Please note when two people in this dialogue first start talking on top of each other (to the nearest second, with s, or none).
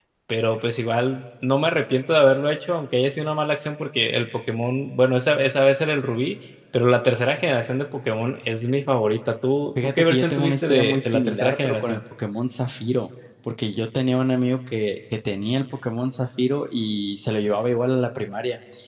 10 s